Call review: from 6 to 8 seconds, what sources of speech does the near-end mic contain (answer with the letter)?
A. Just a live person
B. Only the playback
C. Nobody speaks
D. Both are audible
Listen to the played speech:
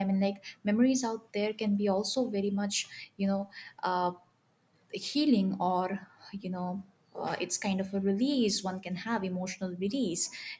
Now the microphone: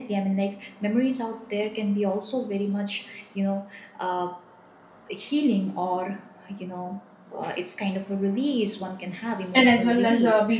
B